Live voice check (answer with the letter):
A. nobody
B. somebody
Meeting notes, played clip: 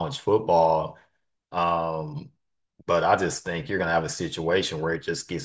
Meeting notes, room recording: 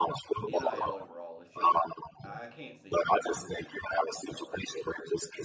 B